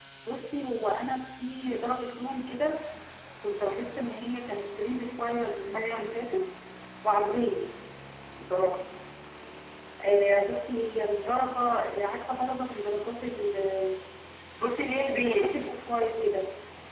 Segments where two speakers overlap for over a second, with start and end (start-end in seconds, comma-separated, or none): none